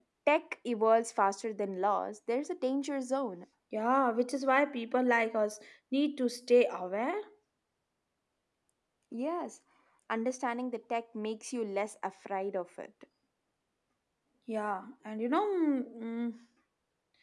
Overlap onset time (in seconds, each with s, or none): none